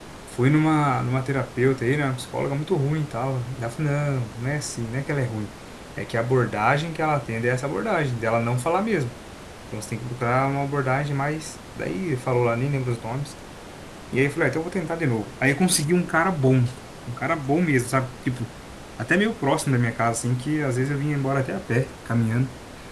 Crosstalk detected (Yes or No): No